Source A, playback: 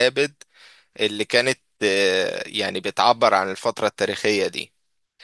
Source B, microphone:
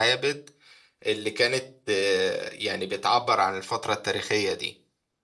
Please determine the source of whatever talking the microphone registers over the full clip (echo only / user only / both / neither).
echo only